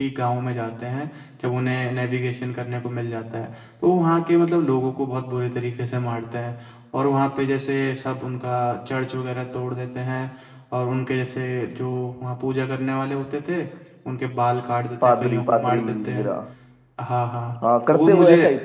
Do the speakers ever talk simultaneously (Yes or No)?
Yes